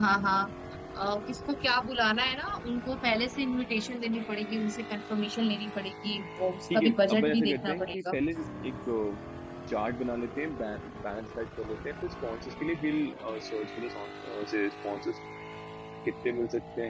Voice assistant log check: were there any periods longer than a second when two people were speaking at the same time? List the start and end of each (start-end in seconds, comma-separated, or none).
6.7-8.2